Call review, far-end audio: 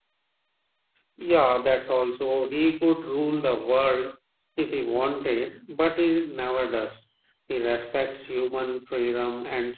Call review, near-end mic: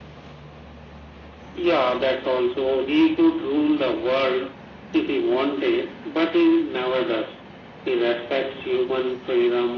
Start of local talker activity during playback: none

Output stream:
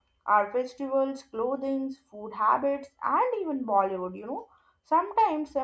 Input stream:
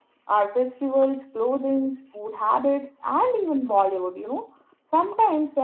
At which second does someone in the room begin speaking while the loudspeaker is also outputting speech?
none

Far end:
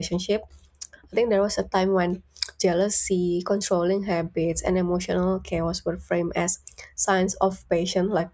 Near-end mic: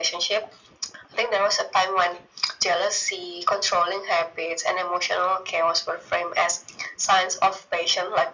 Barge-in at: none

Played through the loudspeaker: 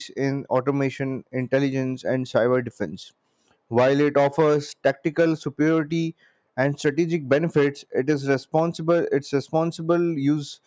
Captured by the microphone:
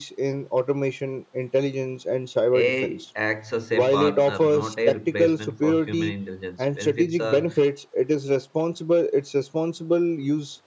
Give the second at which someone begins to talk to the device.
2.5 s

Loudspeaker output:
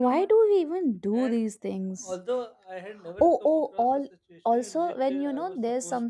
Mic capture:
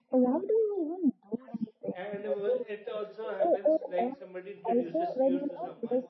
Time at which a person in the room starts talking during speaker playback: 2.0 s

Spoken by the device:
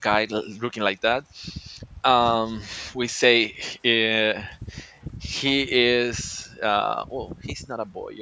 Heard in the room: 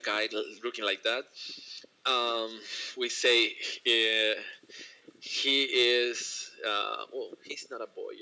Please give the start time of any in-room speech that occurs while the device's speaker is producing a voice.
none

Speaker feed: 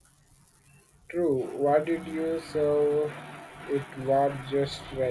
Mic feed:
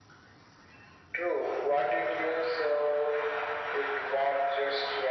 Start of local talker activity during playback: none

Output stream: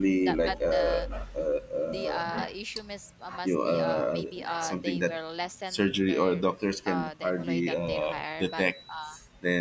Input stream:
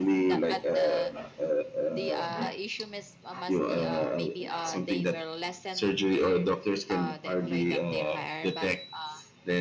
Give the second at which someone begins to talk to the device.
none

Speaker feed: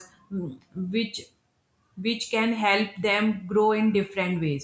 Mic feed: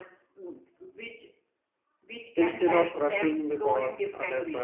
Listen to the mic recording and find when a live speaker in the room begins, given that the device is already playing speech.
2.4 s

